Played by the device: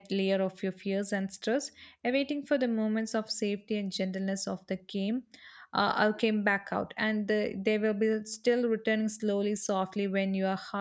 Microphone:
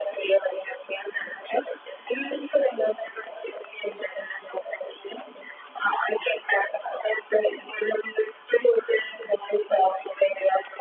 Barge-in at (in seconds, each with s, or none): none